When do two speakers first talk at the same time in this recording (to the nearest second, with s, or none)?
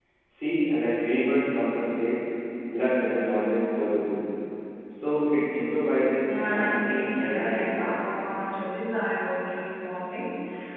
6 s